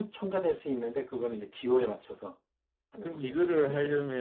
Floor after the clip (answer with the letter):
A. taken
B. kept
A